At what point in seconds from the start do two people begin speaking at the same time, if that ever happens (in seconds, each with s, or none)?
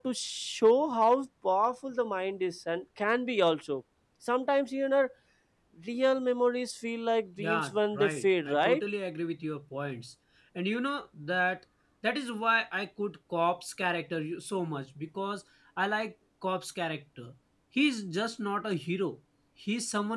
7.4 s